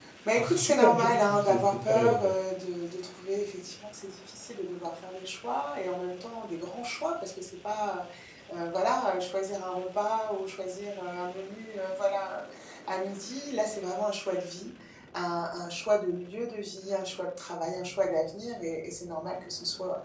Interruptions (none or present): present